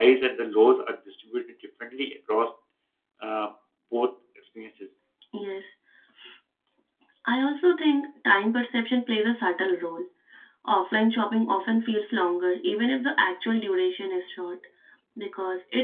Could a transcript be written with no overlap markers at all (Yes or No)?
Yes